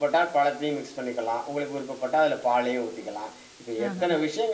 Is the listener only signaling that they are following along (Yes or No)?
Yes